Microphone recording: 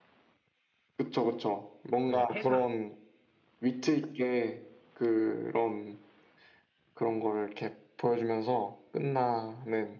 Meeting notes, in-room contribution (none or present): present